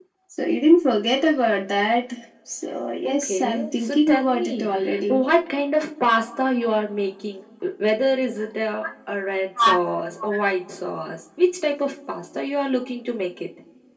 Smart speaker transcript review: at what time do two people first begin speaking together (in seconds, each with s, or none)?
3.0 s